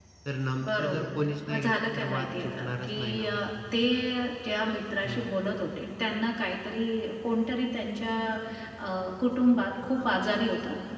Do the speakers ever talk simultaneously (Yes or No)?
Yes